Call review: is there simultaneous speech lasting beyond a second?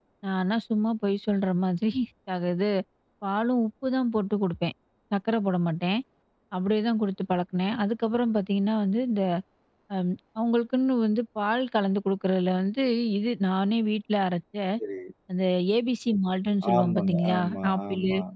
Yes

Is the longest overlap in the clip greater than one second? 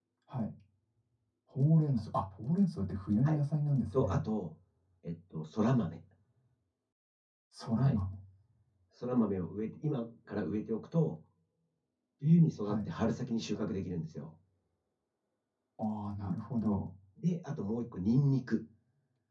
No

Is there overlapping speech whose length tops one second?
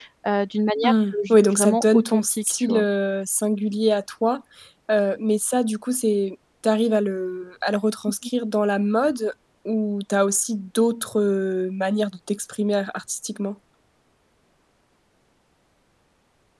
Yes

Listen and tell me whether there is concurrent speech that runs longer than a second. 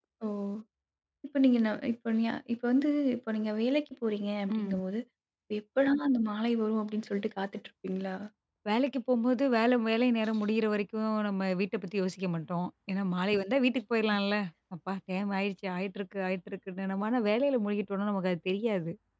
No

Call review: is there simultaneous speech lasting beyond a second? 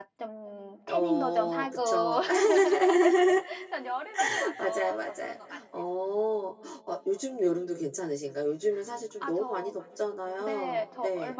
Yes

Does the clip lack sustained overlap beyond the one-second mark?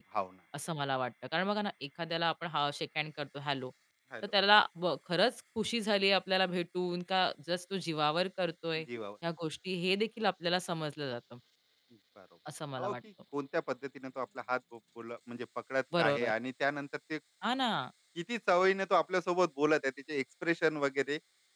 Yes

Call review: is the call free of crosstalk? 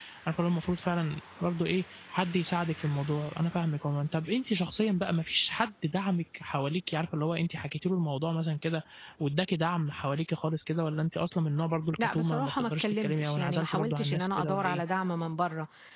No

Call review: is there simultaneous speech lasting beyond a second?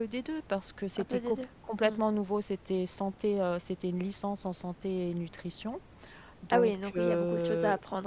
Yes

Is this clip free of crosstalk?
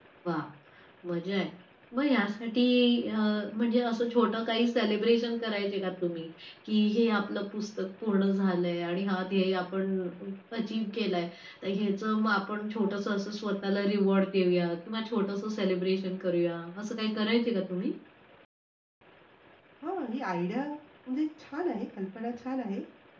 Yes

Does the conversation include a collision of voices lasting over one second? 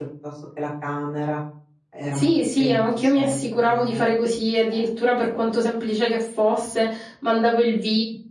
Yes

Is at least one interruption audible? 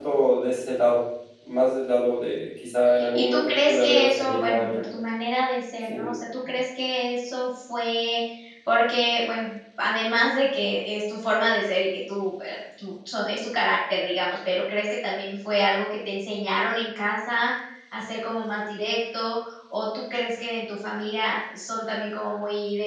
Yes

